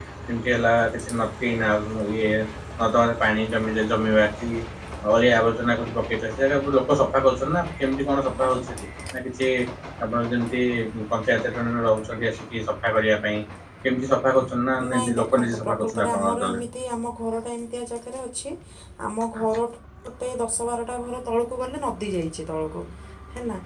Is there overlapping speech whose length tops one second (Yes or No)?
Yes